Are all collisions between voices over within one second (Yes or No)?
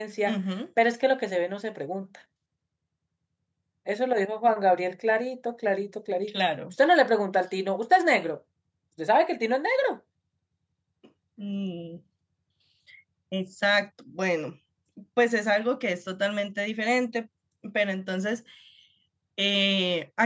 Yes